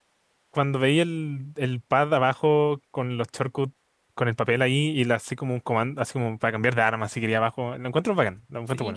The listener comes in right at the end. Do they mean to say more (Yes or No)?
Yes